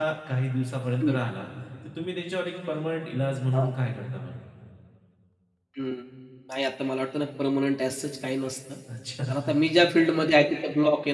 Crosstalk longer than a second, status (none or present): none